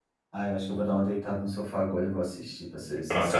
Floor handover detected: Yes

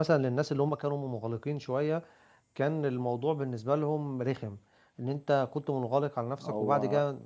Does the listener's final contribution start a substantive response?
No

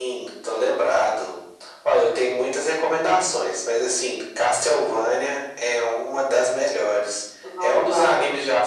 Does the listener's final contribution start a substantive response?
No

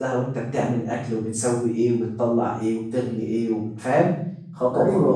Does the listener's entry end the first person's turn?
Yes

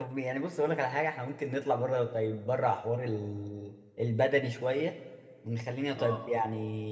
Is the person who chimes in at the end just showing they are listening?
Yes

